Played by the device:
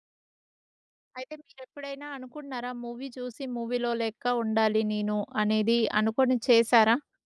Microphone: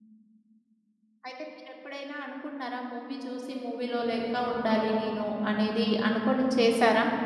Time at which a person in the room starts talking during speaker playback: none

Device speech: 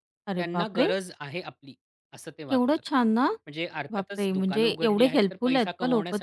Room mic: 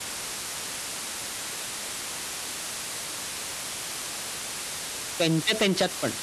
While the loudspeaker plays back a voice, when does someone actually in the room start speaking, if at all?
5.2 s

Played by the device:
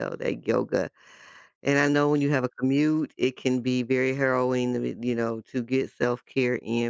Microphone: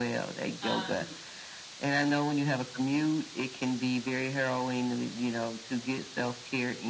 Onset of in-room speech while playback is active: 0.6 s

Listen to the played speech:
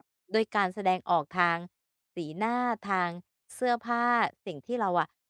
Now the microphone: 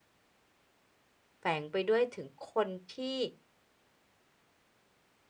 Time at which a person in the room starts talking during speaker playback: 1.4 s

